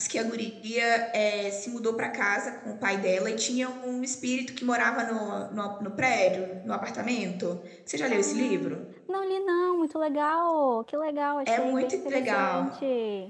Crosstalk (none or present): present